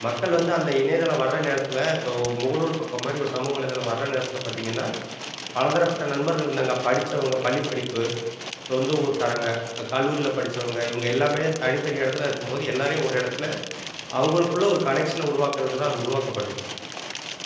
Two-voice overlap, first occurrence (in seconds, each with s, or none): none